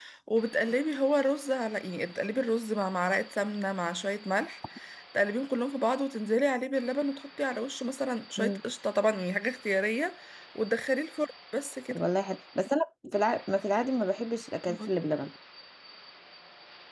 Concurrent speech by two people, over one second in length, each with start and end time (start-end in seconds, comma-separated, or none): none